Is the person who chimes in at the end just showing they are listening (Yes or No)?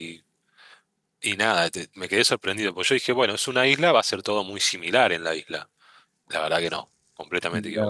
Yes